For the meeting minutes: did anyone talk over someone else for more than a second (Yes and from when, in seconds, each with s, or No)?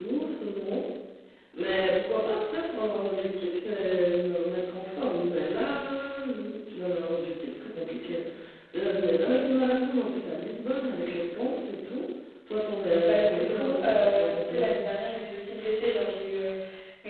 Yes, from 13.0 s